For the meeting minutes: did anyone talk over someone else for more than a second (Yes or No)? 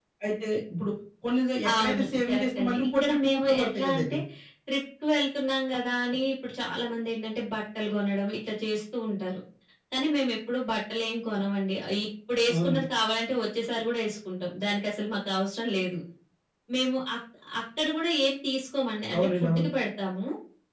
Yes